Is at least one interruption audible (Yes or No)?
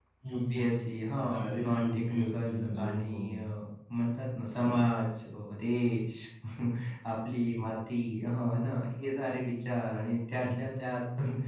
Yes